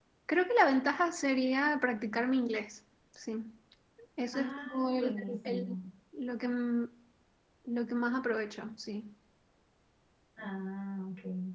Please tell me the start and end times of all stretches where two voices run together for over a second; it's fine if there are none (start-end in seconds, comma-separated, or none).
4.3-5.8